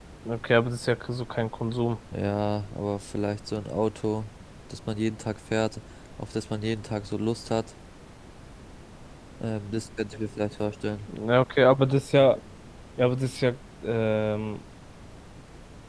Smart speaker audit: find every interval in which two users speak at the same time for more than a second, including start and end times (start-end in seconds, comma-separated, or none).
none